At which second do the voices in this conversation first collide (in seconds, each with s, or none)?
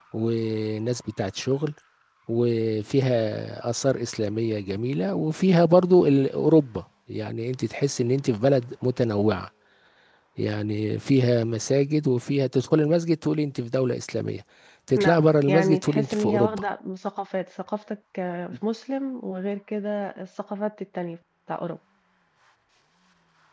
15.0 s